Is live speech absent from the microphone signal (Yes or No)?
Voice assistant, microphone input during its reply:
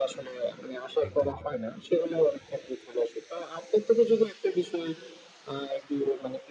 No